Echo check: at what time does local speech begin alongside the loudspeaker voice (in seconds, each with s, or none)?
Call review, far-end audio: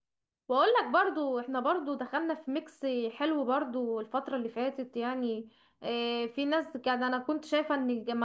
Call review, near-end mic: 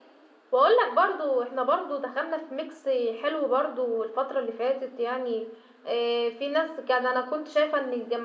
none